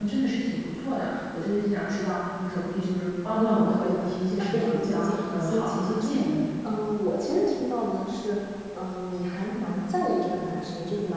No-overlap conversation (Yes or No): No